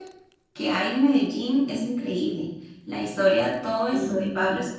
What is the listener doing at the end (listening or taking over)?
listening